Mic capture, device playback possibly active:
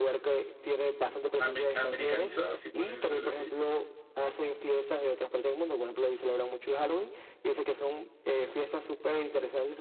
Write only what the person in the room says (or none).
ame- americanizadas, si podría decirle así.